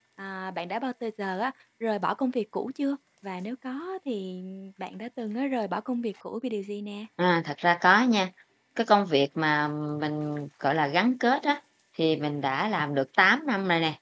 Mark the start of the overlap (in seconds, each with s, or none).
none